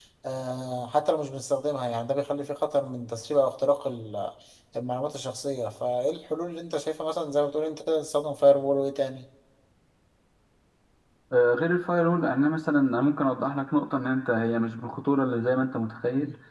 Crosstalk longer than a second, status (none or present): none